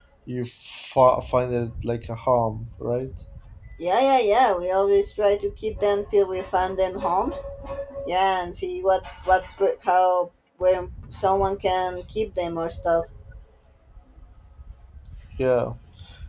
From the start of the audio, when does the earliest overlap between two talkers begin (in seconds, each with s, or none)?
none